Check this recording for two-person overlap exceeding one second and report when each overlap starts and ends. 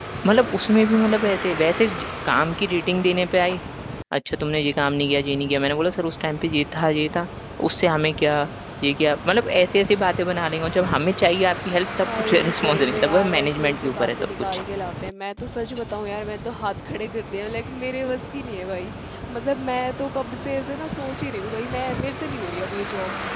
12.0-14.4

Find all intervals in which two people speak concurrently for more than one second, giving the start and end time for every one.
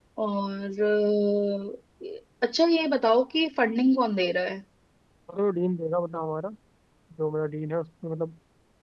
none

